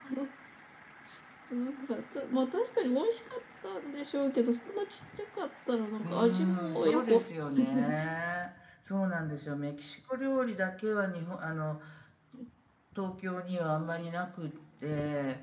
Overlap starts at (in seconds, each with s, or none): 6.0 s